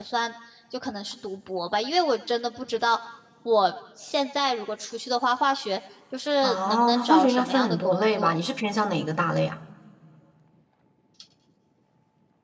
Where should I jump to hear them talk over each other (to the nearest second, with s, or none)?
6 s